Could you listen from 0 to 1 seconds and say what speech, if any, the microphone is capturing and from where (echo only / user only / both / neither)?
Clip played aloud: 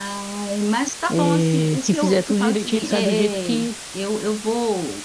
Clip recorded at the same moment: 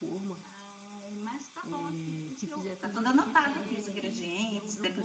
echo only